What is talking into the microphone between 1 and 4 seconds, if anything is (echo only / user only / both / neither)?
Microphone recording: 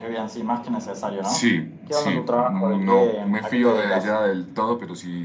echo only